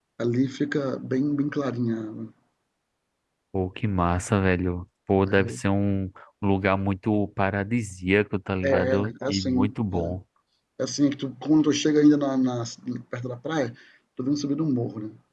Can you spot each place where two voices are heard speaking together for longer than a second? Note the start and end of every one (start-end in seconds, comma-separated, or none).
8.6-10.1